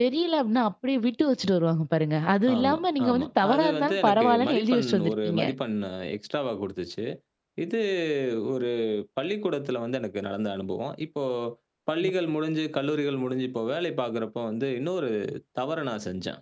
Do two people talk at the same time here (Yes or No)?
Yes